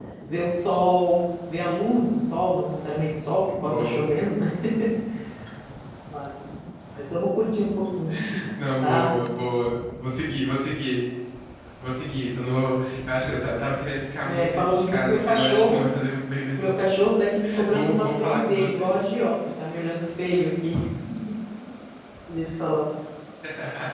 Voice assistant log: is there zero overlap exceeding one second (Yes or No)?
No